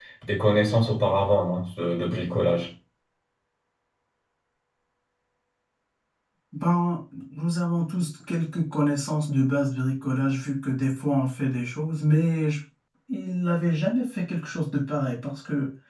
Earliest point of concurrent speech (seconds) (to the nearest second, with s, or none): none